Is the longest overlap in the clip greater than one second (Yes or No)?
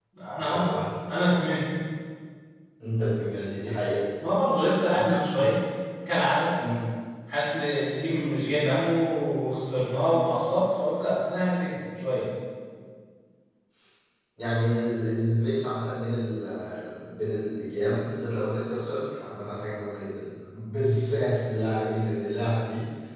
No